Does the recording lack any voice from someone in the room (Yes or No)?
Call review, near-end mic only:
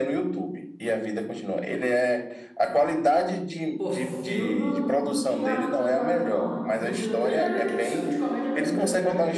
No